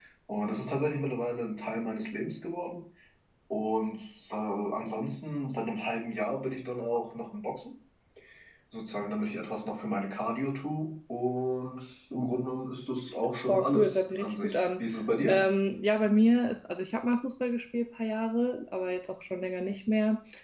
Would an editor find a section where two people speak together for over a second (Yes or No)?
Yes